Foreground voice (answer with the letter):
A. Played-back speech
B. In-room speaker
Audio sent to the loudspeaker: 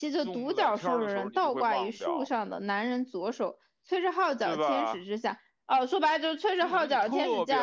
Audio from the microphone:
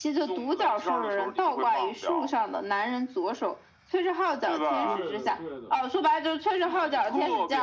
A